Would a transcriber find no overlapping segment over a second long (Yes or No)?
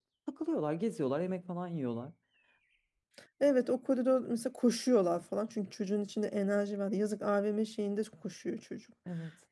Yes